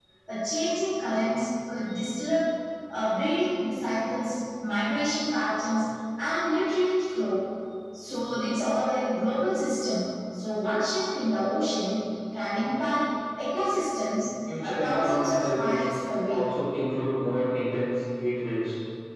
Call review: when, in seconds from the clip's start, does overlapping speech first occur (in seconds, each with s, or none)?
14.5 s